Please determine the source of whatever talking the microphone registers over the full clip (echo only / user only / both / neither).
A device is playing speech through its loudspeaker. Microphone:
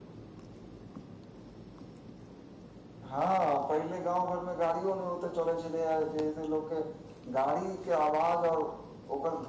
user only